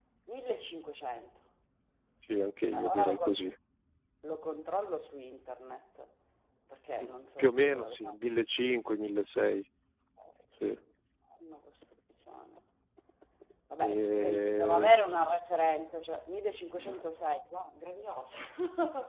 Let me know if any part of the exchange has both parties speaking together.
Yes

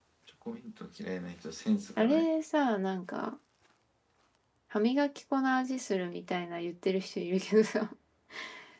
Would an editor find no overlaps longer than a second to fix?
Yes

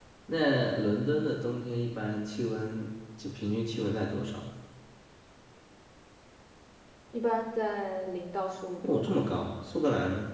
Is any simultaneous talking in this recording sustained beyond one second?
No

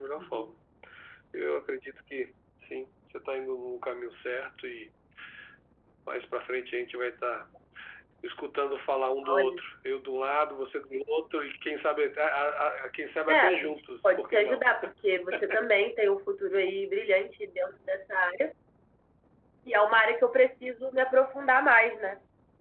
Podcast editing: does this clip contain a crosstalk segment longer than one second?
Yes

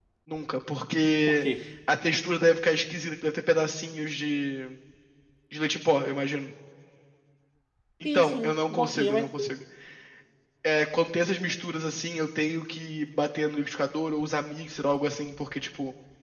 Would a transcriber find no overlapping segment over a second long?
No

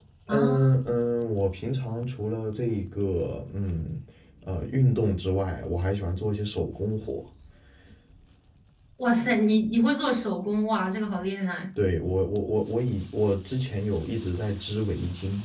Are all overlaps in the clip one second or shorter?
Yes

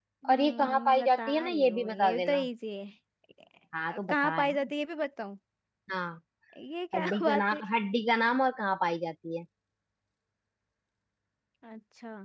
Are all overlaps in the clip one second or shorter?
No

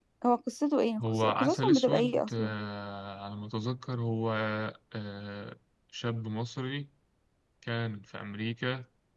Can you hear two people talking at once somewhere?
Yes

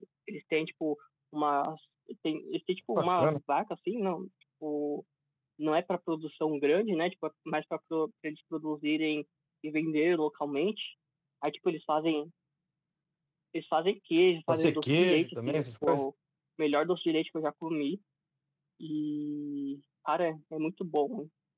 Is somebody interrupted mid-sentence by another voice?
Yes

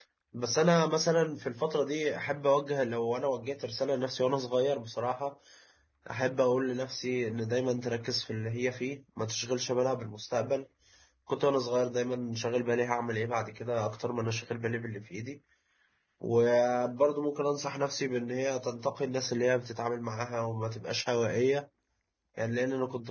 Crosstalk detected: No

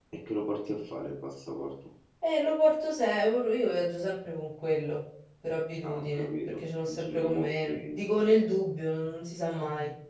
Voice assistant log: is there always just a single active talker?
No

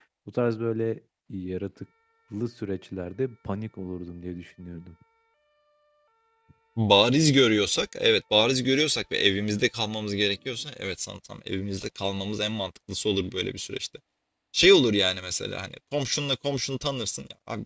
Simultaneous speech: No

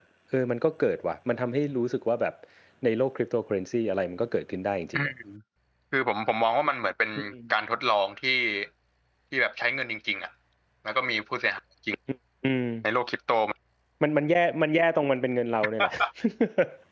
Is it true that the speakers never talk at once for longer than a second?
Yes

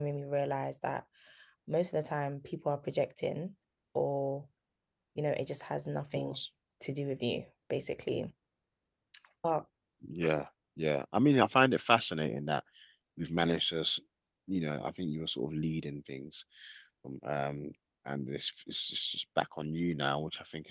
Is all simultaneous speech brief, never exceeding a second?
Yes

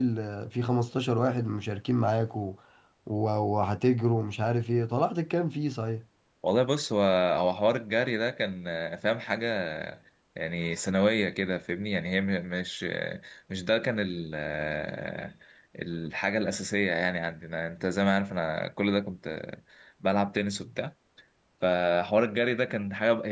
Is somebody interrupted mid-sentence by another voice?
No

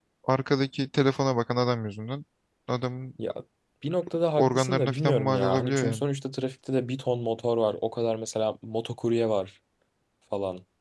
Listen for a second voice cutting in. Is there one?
Yes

